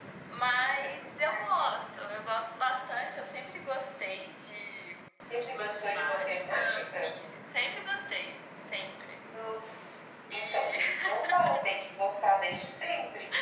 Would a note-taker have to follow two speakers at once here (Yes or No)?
Yes